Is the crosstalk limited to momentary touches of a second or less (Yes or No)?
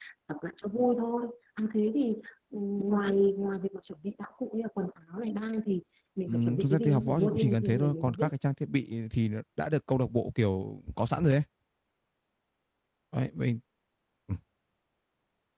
No